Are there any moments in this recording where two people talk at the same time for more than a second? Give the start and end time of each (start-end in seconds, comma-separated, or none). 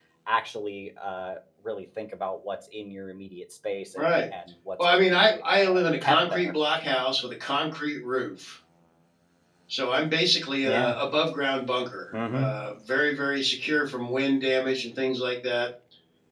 4.8-6.5